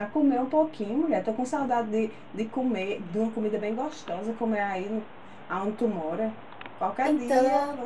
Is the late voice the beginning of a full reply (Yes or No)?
No